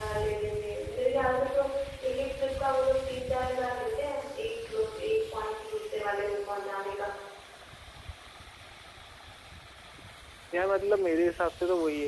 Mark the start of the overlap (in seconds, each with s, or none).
none